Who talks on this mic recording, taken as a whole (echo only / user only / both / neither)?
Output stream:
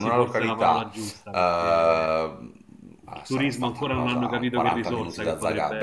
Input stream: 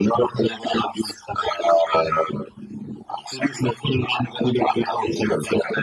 echo only